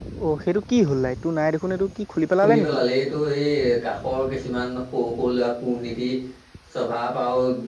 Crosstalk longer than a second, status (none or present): none